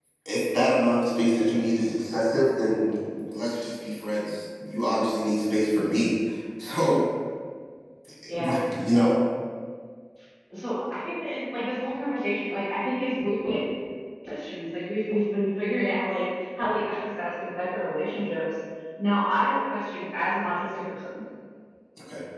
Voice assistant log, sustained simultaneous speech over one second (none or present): none